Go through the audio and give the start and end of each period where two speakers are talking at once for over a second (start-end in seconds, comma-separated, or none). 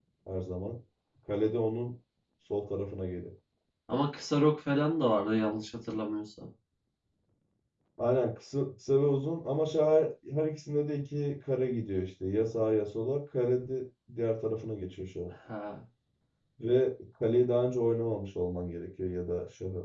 none